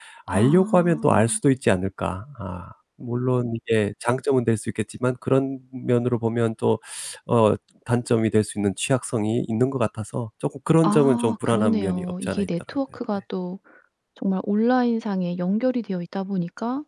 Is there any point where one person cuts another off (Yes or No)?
Yes